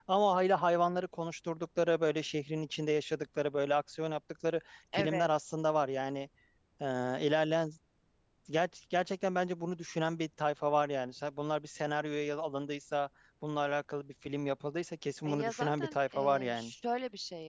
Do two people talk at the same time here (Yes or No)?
Yes